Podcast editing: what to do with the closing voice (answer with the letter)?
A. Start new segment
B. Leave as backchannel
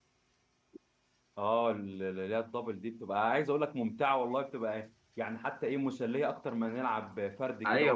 A